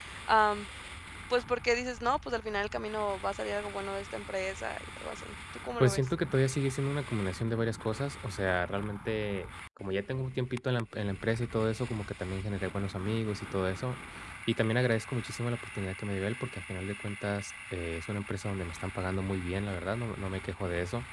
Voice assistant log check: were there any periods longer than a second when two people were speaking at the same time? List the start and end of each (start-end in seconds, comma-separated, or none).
none